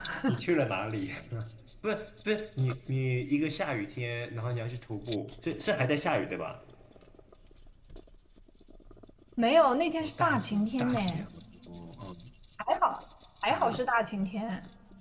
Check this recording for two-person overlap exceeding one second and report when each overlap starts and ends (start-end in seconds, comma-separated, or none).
10.0-11.2